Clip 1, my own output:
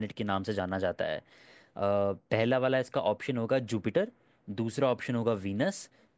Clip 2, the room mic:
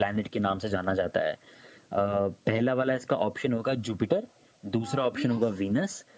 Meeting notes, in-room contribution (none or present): present